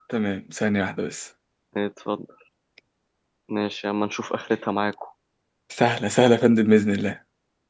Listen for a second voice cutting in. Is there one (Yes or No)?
No